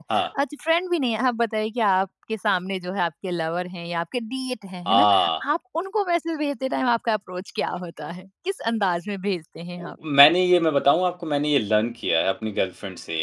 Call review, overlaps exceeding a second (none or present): none